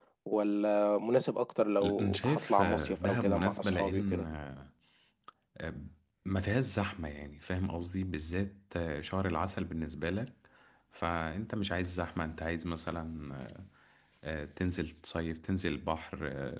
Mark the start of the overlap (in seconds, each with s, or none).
1.8 s